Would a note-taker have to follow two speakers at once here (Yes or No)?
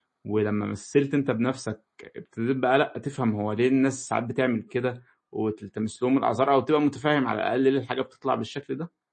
No